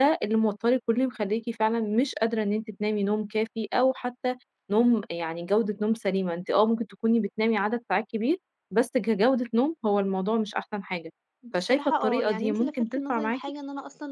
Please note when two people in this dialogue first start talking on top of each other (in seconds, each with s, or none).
11.7 s